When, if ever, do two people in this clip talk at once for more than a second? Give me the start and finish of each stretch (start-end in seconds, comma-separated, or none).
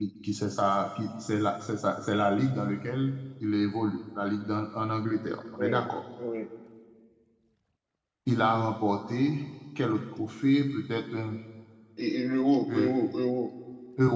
none